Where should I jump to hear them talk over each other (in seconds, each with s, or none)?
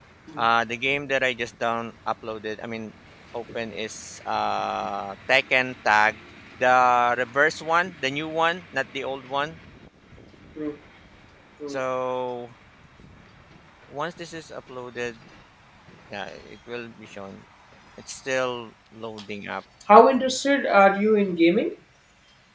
none